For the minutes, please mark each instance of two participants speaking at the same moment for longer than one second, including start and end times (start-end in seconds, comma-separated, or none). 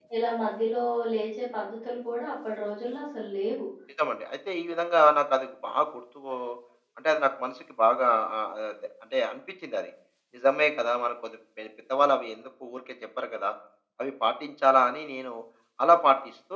none